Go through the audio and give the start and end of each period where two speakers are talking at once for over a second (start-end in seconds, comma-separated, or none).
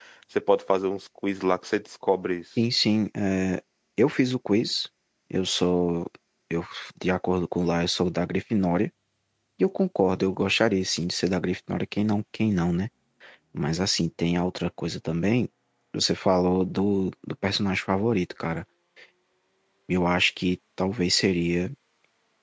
none